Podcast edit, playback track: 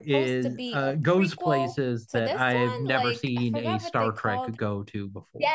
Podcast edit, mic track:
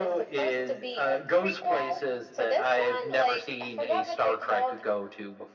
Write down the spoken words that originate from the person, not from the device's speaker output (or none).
none